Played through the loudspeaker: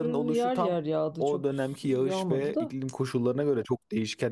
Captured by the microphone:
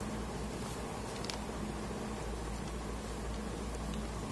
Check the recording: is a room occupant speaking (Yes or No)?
No